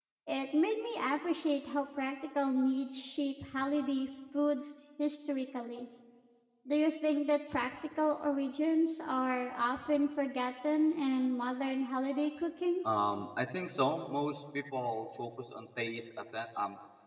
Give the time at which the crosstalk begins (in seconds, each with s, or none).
none